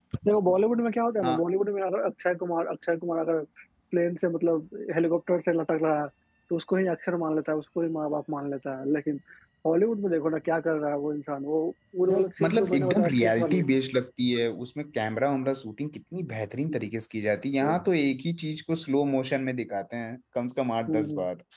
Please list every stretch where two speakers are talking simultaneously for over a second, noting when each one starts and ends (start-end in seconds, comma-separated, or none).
12.1-13.6